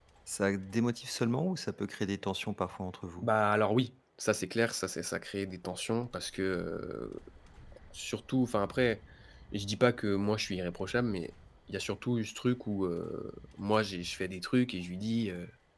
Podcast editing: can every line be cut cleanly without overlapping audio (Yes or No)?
Yes